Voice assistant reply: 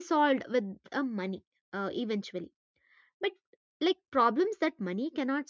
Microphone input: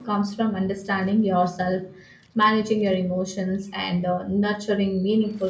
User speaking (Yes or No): Yes